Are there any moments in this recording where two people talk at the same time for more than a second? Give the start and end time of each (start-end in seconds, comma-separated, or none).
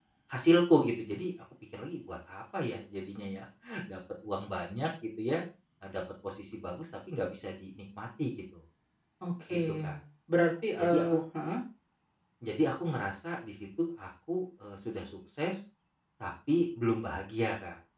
none